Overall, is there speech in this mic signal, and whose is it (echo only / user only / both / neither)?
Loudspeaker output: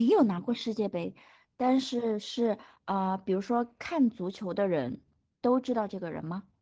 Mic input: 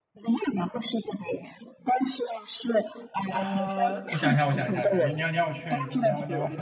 both